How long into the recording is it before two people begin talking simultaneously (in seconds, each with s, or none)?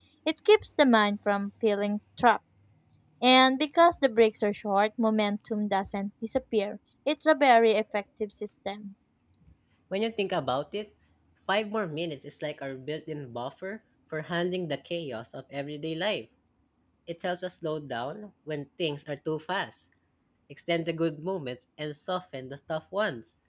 none